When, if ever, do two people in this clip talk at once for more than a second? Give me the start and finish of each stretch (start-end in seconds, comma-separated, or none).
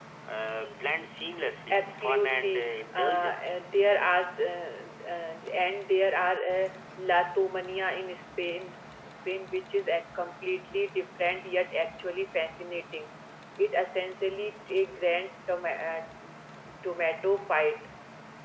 1.7-3.6